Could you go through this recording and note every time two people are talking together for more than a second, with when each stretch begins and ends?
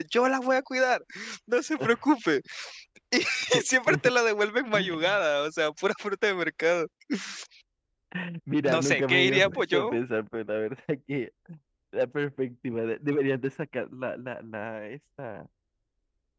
8.7-10.0

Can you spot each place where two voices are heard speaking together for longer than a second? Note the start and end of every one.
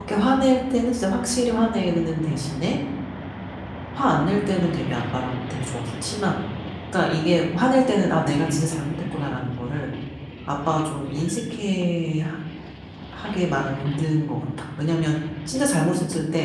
none

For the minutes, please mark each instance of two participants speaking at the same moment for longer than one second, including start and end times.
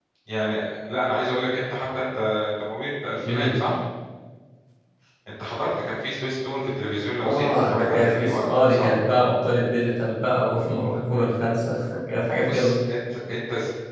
7.2-8.9

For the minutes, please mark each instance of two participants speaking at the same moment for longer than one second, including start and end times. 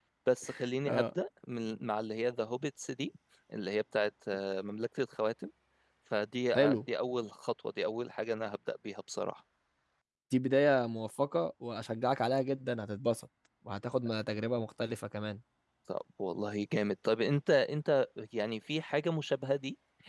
none

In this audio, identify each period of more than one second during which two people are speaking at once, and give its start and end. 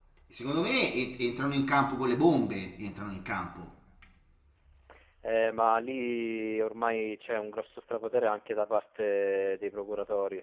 none

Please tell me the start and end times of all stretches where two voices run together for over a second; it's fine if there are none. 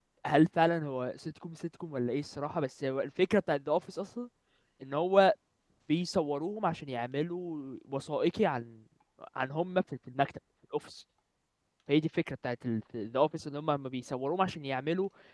none

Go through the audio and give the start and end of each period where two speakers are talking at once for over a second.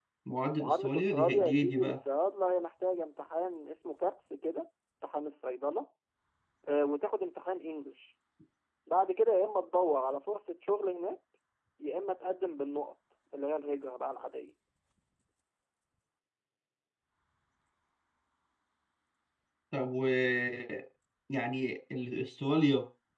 0.6-2.0

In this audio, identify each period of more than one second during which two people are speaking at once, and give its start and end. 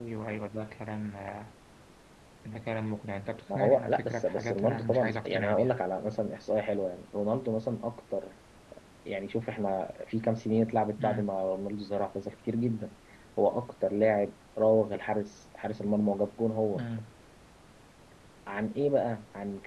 3.5-5.7

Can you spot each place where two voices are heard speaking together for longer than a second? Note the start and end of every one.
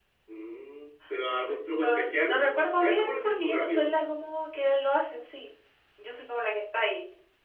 1.8-3.9

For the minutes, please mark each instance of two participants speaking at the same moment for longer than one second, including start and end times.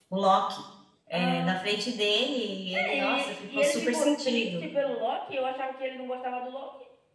2.7-4.7

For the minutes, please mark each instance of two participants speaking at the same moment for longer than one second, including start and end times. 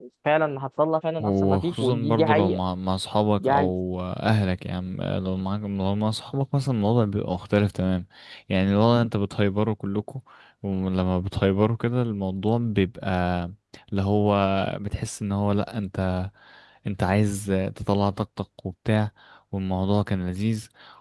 1.2-2.6

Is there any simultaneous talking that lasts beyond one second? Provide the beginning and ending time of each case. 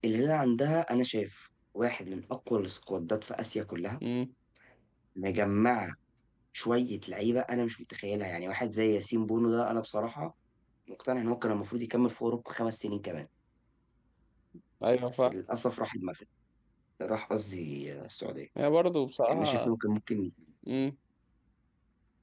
none

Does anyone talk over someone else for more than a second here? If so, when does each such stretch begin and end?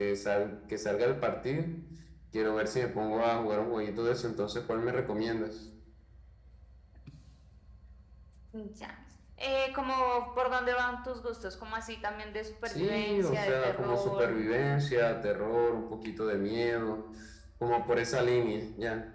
12.7-14.4

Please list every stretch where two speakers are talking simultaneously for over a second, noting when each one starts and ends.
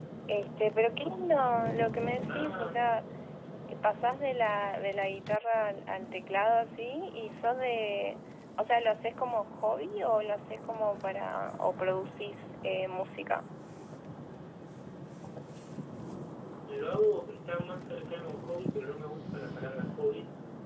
none

